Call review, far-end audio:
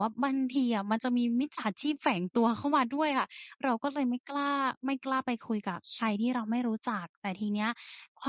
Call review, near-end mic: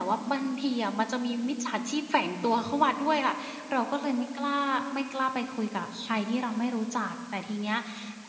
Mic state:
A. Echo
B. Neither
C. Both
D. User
A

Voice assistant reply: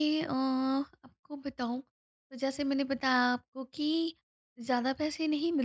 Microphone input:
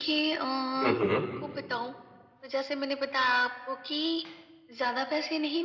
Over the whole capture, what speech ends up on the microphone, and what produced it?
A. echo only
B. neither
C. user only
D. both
D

